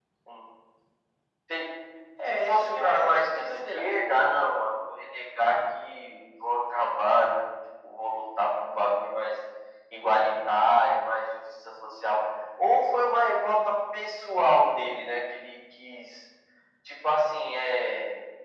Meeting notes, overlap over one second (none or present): present